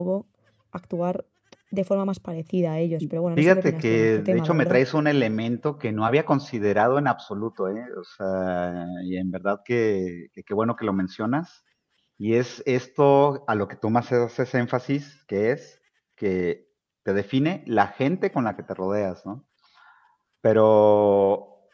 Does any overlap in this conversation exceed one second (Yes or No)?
Yes